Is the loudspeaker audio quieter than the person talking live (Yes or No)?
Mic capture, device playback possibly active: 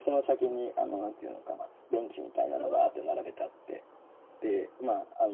No